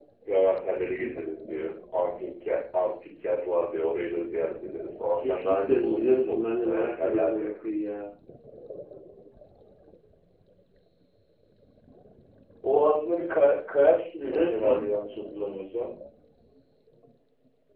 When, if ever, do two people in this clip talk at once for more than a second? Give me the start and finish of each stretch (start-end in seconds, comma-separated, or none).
5.2-7.5